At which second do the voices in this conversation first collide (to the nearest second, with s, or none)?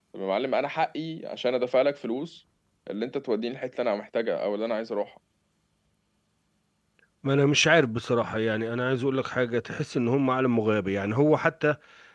none